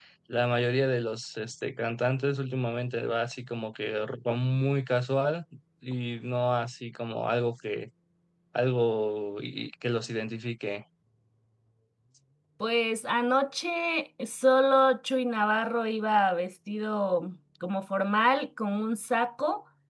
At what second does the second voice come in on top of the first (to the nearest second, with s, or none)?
none